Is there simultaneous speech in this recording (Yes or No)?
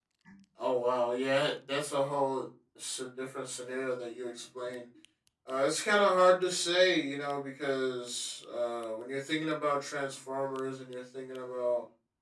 No